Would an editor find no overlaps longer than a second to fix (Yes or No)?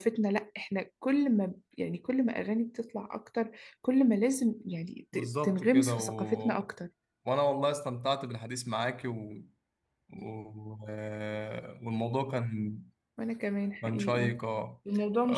No